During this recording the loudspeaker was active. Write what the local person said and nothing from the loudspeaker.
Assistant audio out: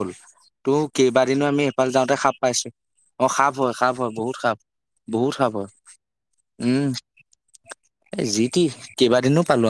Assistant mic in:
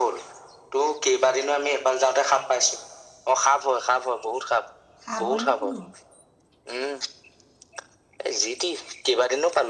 সাপ নি কিনো

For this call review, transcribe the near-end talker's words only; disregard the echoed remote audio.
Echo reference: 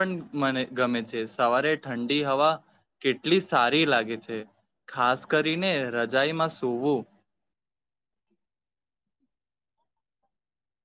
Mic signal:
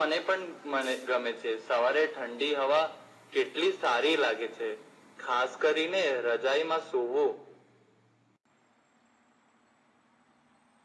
none

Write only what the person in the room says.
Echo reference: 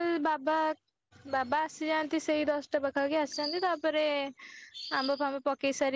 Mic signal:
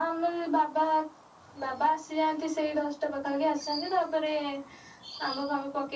none

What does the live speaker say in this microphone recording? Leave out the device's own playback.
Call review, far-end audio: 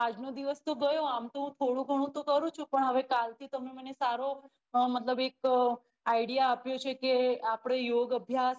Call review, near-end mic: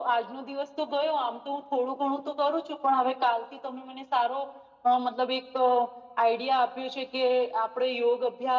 none

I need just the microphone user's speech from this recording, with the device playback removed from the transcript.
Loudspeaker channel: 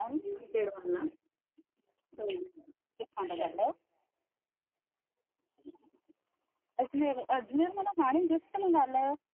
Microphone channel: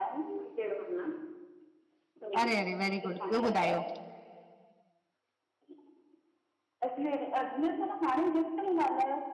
अरे -अरे वेरी गुड, ॿियो ॿुधायो

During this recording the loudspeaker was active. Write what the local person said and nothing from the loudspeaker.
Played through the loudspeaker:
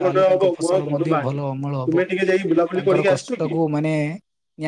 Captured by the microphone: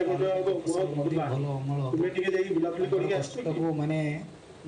none

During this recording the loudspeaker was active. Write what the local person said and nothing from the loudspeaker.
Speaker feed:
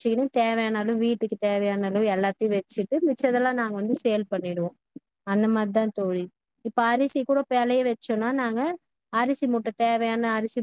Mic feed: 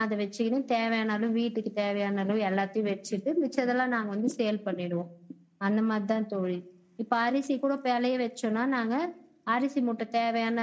none

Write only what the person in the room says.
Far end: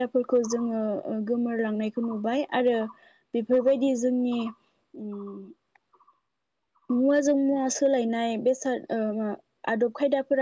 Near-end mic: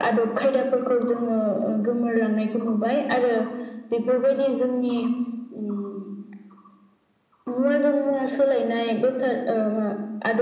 none

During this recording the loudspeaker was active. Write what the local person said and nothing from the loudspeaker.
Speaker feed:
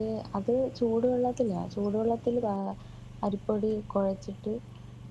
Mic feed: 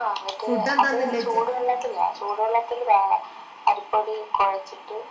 ഫുടെന്താ ന്ന് ള്ളെ ചോയ്ച്ച

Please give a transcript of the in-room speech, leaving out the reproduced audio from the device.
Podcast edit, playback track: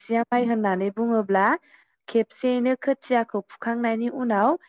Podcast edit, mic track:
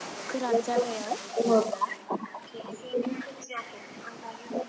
गोरान जागायाव

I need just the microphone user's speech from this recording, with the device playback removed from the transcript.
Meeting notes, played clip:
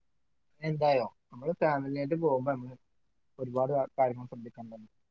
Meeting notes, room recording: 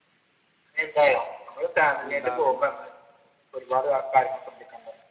ഉണ്ടാകും

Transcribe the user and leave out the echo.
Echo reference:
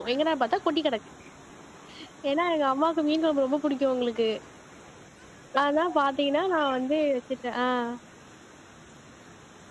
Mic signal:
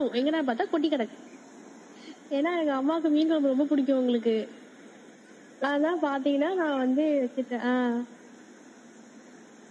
none

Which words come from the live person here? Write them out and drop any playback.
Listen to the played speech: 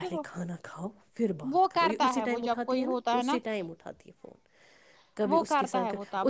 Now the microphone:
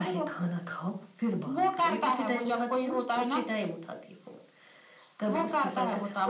none

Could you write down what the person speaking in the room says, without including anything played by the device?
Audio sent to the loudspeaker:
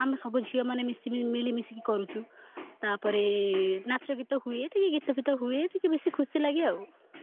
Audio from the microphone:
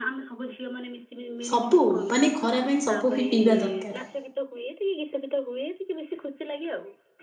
ସବୁ ମାନେ ଖରା ପାଇଁ ସବୁ ବି ପିଇବା ଦରକାର।

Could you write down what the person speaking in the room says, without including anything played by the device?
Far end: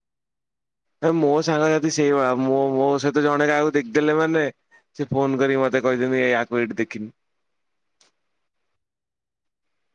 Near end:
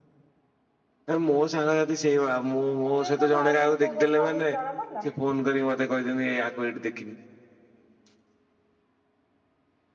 ଚୁଇଁଙ୍କ ମାଙ୍କ କଥା ଆଉ କିଛି ଜଣା ପଡ଼ିଲା?

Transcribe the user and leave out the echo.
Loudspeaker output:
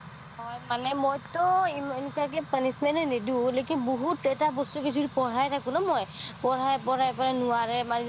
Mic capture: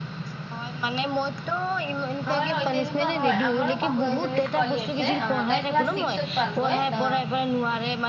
হয় হয় তেনেকুৱা হয় আমাৰো কাষৰ এজনী ছোৱালী আছে অহ তাই ক্লাছ ছি ক্সত পাল গৈ অ

